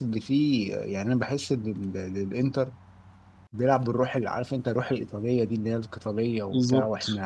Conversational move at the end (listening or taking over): listening